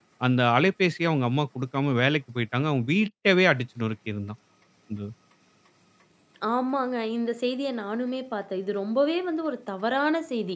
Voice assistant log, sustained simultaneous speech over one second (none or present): none